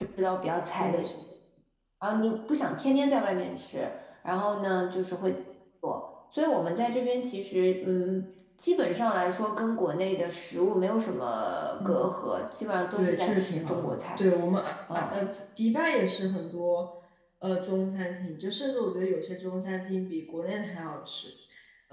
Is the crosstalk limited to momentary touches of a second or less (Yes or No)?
No